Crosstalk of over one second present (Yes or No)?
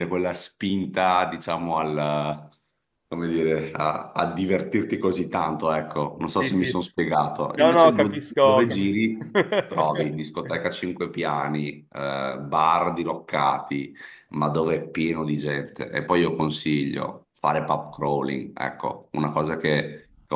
Yes